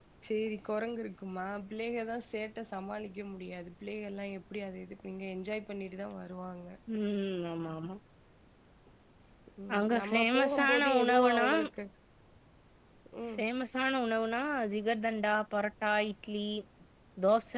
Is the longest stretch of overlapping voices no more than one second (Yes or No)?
No